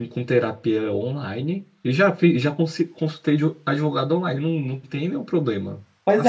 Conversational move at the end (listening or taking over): taking over